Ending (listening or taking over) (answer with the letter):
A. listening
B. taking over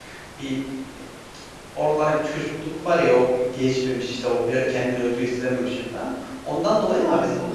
A